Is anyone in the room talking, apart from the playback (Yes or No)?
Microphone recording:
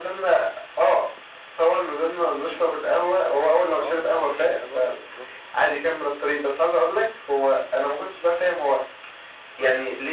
Yes